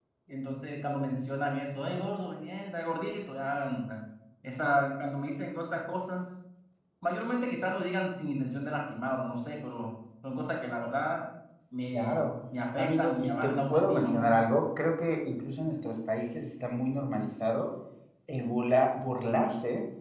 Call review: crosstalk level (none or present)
present